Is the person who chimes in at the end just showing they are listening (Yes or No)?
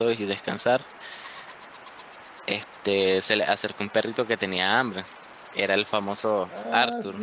No